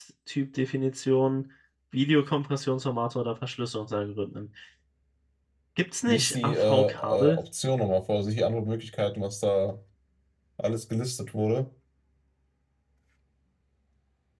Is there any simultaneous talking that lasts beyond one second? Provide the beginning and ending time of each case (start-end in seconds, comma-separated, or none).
6.1-7.4